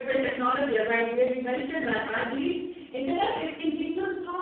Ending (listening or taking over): listening